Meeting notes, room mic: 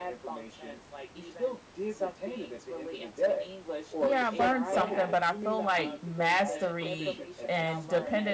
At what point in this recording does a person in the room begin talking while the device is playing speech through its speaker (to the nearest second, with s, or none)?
4 s